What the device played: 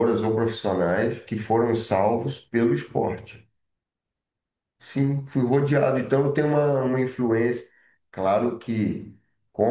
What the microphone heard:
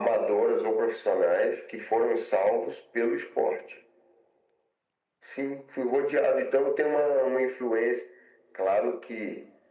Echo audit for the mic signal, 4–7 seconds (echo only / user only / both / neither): echo only